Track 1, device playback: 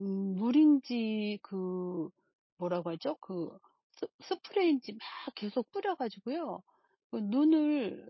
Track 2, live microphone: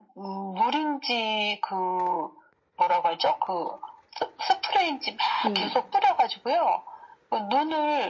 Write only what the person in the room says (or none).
그